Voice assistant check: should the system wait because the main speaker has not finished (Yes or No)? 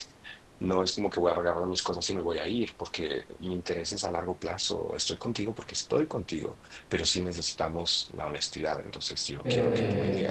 No